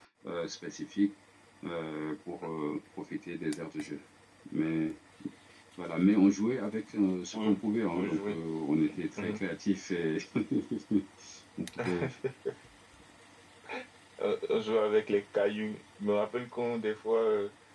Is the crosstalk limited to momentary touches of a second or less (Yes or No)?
Yes